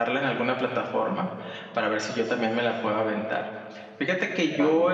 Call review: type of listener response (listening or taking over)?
listening